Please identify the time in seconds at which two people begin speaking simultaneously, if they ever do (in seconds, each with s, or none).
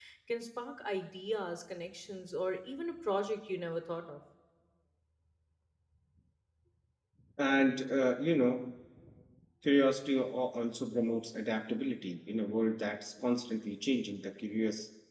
none